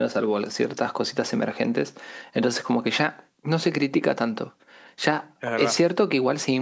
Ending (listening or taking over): listening